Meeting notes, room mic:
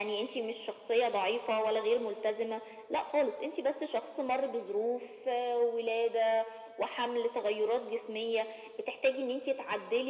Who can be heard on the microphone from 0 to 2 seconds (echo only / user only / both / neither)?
echo only